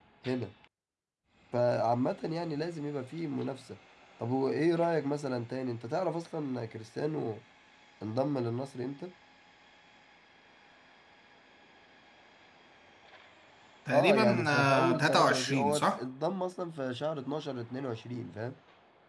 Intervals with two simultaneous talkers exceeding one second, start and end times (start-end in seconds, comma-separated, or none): 13.9-16.0